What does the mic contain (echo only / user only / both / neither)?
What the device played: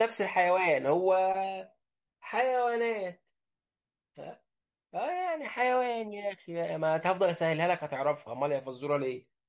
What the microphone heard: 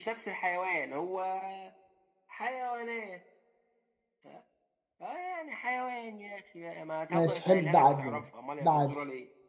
both